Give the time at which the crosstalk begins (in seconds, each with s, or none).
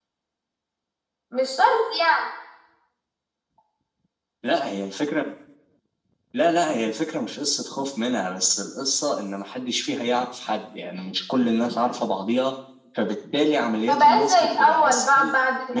13.9 s